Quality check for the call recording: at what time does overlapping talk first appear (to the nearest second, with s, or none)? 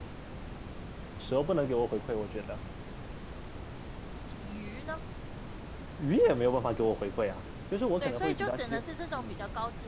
8 s